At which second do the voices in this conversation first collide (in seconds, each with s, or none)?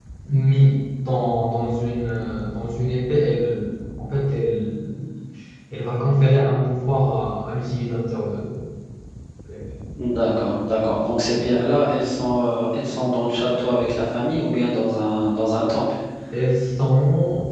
none